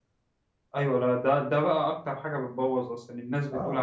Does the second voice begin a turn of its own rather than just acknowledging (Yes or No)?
Yes